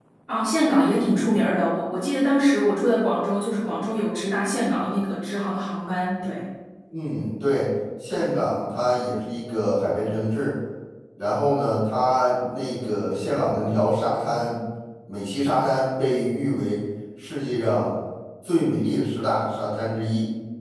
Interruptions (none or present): none